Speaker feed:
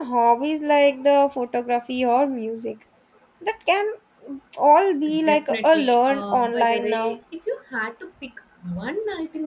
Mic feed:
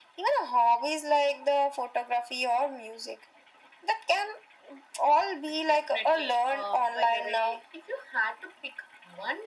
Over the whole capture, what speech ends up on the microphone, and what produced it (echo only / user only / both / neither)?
echo only